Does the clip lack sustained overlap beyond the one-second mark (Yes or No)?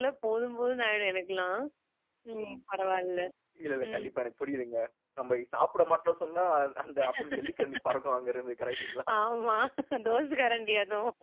Yes